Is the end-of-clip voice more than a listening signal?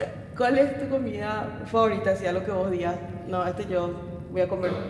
Yes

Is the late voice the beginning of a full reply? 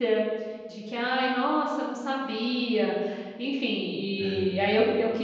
No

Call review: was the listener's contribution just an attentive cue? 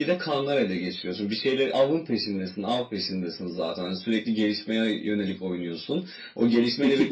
No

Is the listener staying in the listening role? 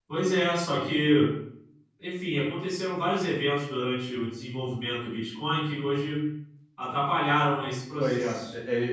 No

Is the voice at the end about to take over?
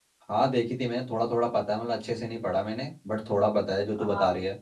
Yes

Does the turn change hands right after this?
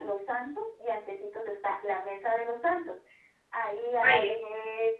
No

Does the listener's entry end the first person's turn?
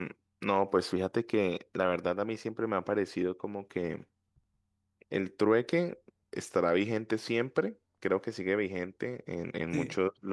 No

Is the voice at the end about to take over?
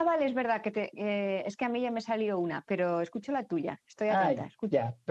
Yes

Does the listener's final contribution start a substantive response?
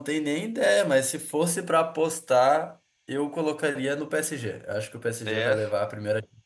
No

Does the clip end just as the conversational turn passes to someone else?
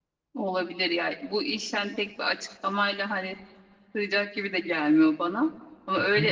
No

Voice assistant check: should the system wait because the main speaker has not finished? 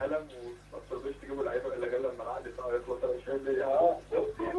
No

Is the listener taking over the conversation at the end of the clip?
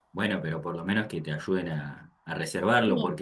No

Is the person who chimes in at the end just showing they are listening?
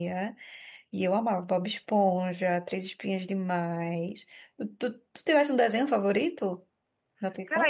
No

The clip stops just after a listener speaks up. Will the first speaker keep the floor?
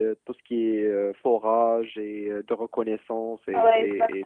No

